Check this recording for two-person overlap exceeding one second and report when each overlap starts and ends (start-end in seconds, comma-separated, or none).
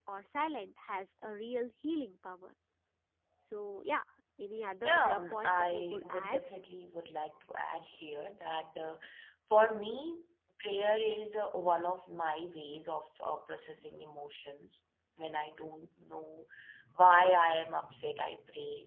4.8-6.4